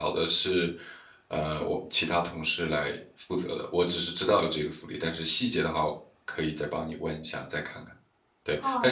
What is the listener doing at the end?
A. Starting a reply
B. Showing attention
A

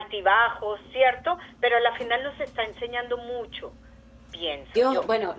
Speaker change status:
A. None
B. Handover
B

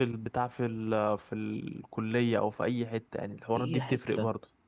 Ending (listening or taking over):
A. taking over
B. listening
A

